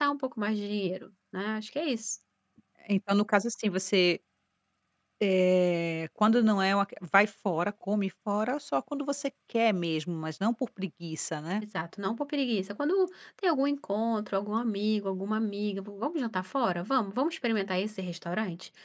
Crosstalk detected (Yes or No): No